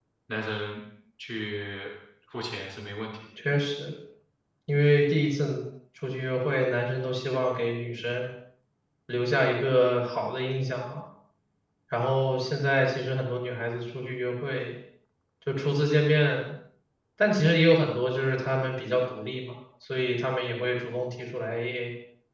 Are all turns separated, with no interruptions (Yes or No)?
Yes